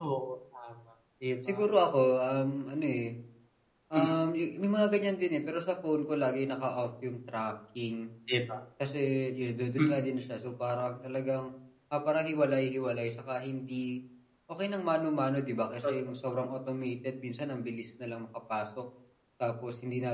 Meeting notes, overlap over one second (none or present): none